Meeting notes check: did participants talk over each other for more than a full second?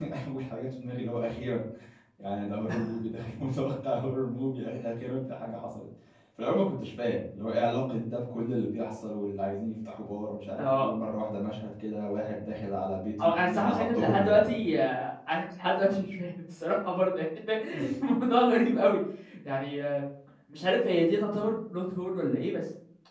Yes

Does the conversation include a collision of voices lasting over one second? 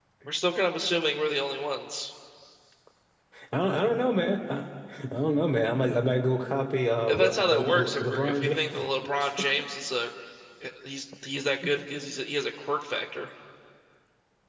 Yes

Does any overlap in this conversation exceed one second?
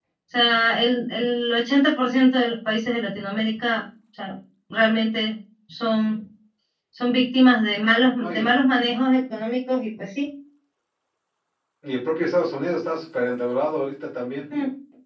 No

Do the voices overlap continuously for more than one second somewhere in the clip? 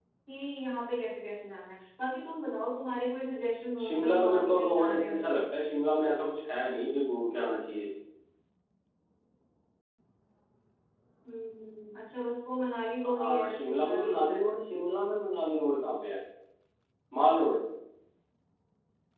Yes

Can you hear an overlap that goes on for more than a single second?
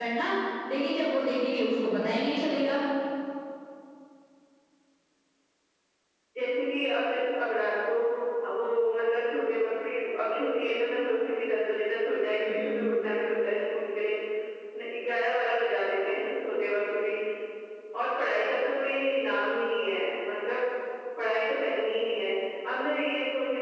No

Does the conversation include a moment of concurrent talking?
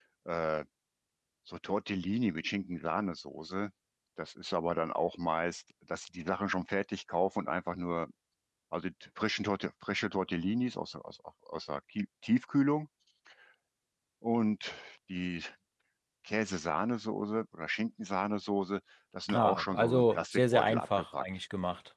Yes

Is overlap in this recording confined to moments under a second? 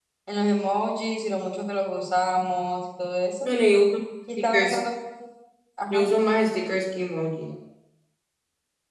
Yes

